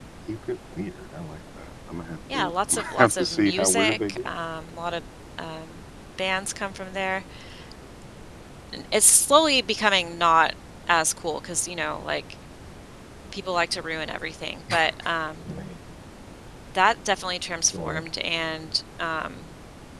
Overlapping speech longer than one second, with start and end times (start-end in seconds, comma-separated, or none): 2.3-4.3